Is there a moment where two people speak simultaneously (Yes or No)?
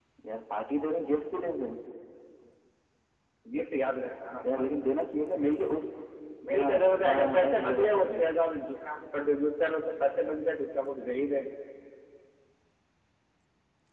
Yes